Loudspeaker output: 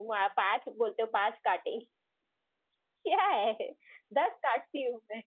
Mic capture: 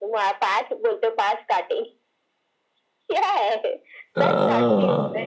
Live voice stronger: Yes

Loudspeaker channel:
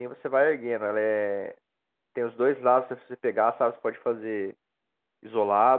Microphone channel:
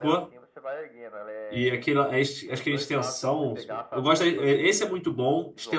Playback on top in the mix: No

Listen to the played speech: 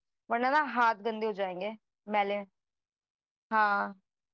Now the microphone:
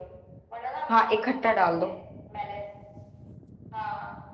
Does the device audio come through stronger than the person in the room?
No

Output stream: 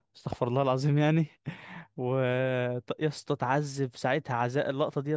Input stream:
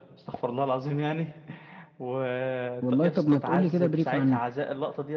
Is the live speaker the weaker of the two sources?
No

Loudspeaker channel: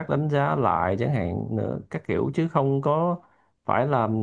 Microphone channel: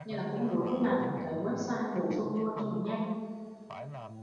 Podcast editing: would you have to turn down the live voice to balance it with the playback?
Yes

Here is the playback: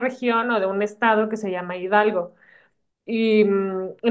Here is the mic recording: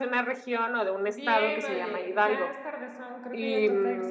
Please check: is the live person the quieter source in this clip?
Yes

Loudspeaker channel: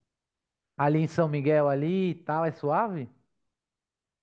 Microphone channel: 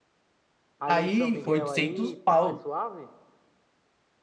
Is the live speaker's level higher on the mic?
Yes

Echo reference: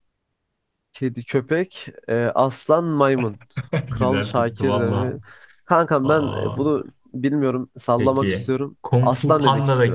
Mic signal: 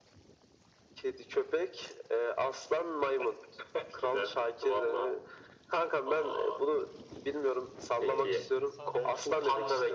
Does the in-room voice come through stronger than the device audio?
No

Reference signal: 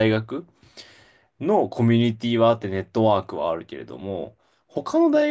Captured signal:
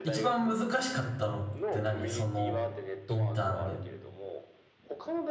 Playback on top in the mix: No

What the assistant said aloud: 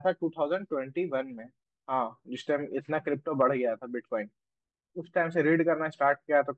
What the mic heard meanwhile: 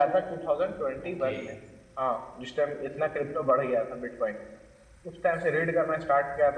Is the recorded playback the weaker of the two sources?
No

